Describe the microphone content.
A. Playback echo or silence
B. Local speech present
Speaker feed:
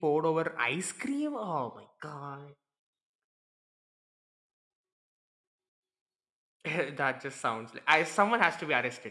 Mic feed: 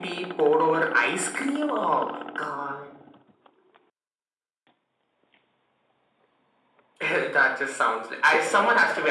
A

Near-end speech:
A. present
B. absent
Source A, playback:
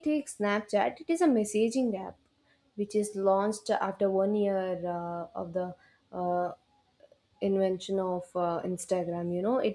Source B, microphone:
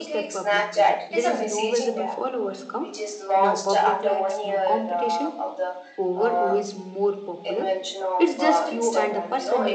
A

